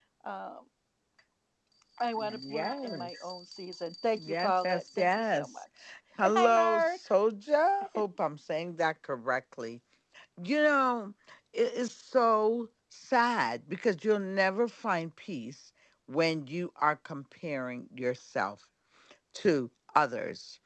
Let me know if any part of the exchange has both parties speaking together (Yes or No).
Yes